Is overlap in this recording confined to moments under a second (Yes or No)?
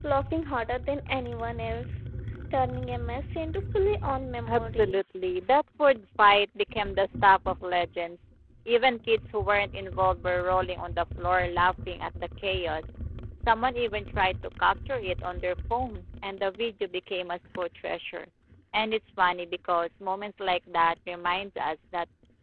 Yes